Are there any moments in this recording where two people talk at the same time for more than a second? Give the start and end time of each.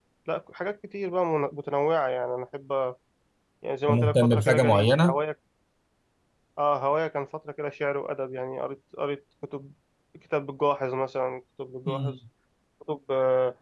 3.9-5.2

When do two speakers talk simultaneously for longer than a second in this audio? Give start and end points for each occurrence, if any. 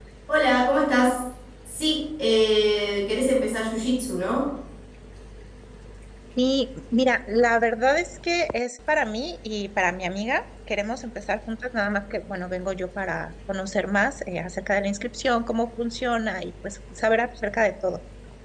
none

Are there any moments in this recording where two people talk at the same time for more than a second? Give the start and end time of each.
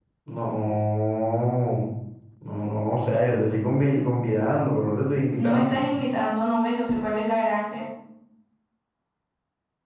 none

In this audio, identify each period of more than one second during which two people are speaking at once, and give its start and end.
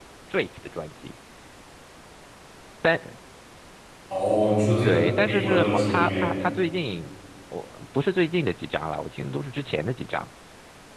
4.8-6.3

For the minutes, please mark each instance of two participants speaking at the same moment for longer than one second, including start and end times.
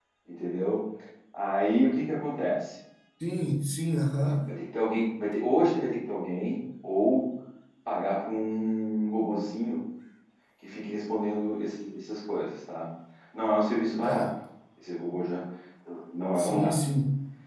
none

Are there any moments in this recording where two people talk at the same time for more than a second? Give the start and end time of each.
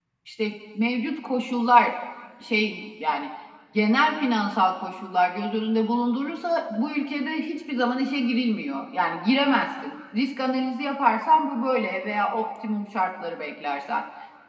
none

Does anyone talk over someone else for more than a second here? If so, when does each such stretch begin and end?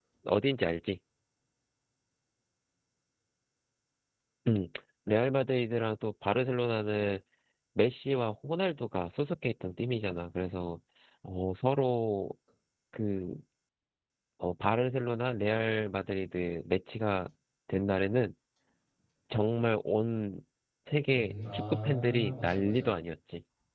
21.1-22.9

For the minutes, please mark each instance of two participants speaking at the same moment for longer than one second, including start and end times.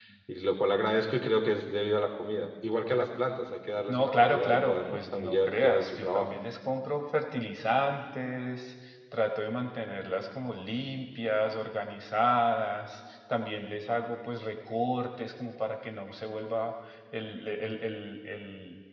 3.9-6.4

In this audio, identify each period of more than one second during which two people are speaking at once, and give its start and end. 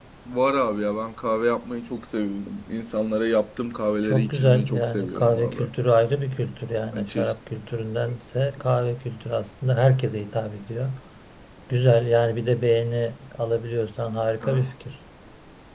4.0-5.7

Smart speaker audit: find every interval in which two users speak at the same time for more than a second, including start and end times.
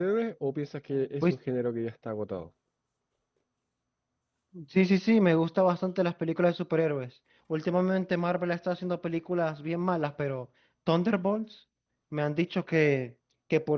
none

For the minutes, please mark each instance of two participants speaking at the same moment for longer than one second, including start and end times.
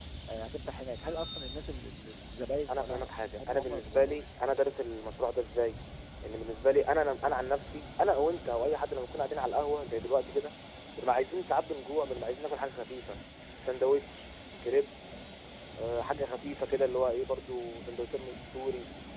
2.7-4.2

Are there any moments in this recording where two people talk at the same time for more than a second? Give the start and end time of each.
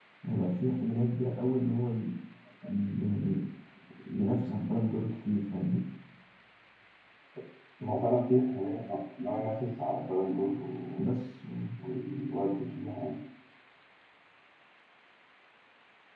none

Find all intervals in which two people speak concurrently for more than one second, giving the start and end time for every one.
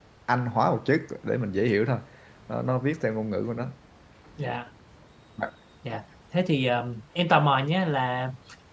none

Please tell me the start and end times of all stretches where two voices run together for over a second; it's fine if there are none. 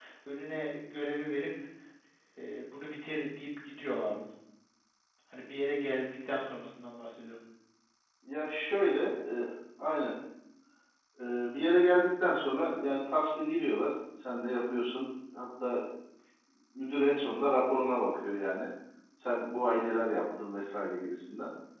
none

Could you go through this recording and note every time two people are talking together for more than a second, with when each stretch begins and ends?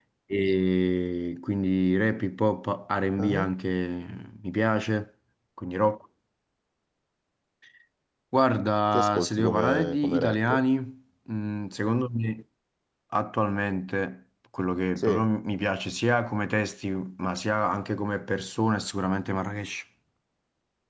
8.9-10.6

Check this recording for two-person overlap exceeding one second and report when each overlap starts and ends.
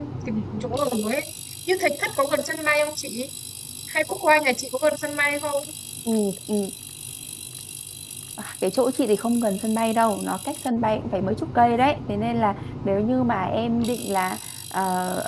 none

